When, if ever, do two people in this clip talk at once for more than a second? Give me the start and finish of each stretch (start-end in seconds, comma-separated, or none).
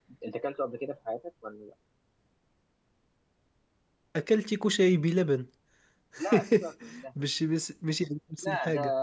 none